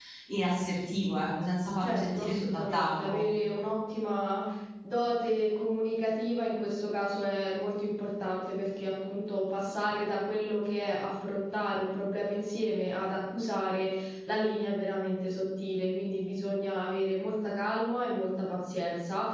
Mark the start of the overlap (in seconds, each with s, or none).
1.8 s